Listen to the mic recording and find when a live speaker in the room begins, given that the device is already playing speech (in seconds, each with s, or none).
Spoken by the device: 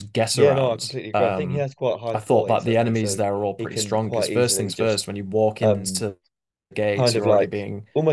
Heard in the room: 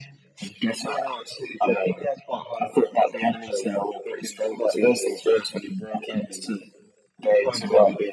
none